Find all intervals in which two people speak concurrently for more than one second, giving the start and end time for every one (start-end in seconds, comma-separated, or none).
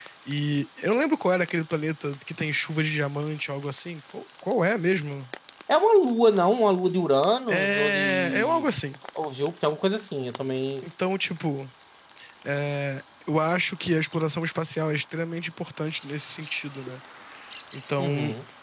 7.5-8.7